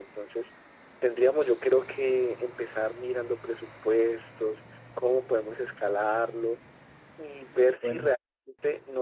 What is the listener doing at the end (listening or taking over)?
listening